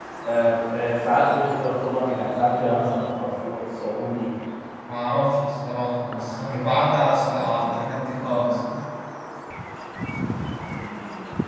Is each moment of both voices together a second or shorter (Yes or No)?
Yes